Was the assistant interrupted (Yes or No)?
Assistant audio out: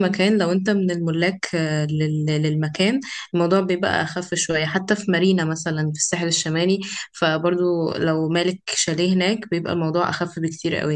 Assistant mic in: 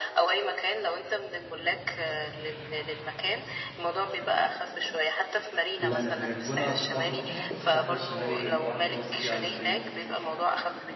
Yes